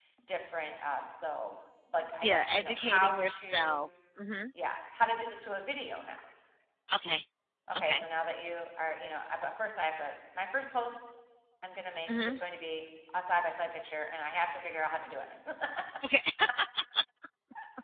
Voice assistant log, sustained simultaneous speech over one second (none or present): present